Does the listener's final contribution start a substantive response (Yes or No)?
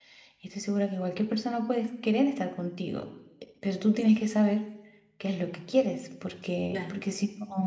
No